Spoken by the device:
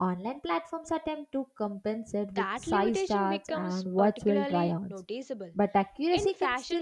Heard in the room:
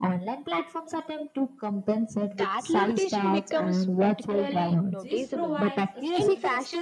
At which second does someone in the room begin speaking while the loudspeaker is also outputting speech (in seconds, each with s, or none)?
4.9 s